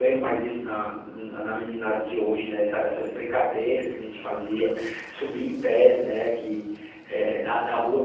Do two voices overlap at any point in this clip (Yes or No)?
No